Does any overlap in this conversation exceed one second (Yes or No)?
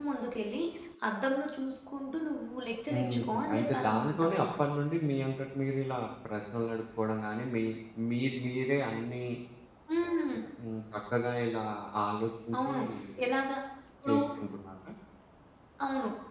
Yes